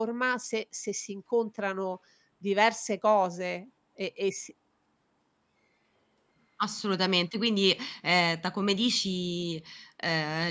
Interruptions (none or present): none